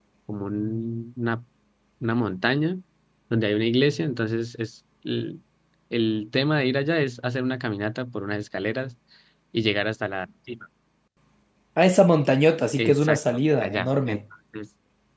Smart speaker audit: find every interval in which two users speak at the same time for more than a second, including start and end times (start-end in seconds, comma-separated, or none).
12.8-14.2